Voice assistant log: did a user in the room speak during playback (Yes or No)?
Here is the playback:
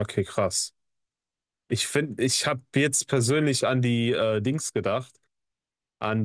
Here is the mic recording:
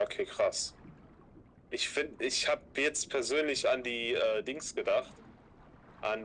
No